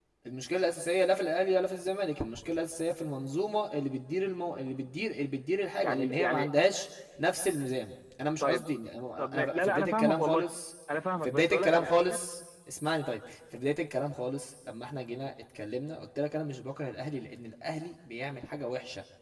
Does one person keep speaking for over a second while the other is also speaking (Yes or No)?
Yes